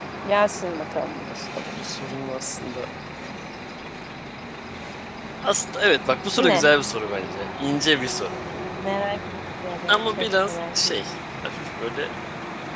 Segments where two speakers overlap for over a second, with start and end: 9.9-11.1

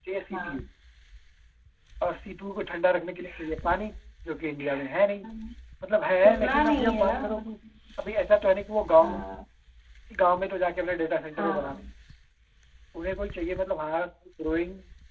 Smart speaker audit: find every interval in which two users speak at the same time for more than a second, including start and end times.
6.2-7.5

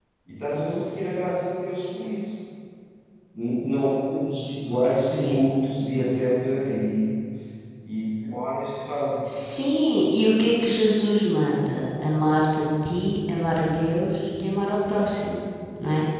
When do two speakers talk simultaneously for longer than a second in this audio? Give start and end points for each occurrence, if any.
none

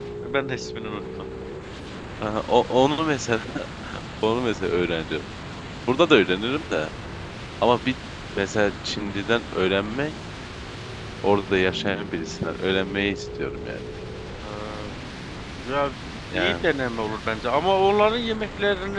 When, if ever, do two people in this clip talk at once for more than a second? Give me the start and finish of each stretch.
none

